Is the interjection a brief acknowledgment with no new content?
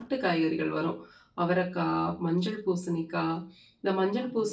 Yes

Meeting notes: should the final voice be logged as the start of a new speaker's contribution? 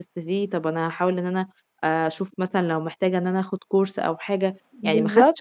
No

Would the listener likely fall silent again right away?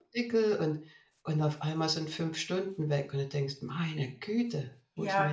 No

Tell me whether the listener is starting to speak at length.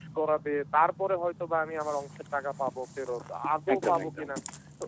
No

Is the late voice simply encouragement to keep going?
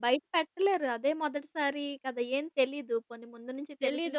No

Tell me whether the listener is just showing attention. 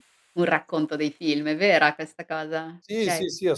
No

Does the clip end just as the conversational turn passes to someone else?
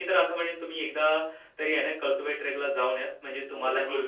Yes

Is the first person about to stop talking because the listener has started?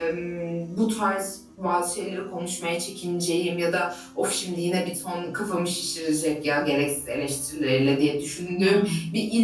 No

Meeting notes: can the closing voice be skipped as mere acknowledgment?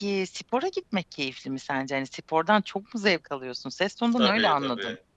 No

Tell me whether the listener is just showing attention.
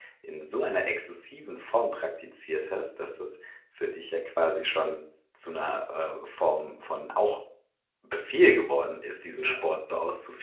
Yes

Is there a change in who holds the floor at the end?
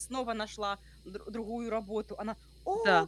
No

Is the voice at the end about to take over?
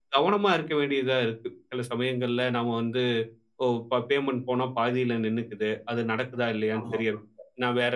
No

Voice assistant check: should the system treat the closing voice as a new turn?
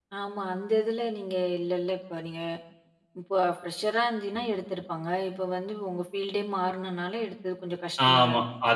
Yes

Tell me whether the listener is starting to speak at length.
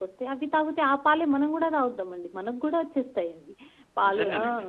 No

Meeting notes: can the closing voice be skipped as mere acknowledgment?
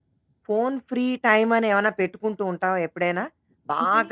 Yes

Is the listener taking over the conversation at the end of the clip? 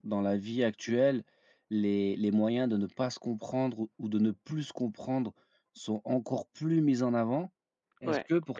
No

